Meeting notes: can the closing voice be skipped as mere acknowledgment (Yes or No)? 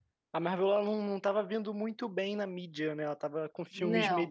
Yes